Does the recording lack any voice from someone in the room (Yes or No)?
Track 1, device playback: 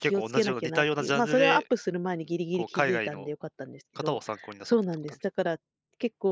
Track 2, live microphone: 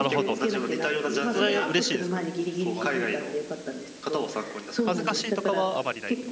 No